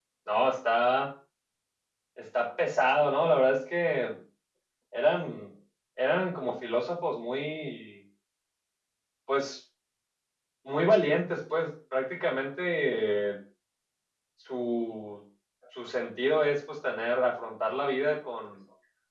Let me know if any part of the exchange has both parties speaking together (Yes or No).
No